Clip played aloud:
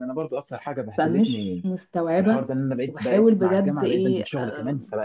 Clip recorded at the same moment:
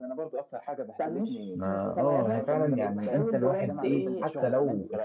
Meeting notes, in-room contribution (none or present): present